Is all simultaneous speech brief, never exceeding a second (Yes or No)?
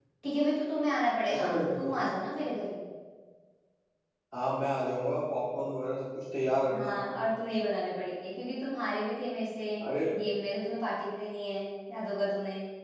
Yes